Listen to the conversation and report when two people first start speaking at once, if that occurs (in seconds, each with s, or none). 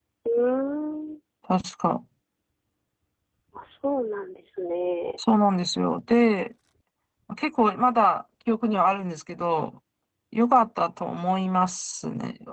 none